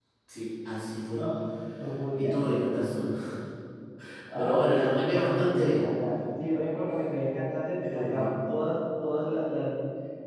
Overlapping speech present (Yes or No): Yes